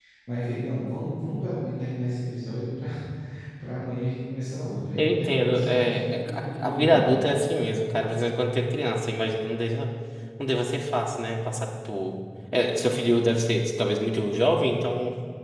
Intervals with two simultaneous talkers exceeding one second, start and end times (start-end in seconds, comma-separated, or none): 5.0-7.1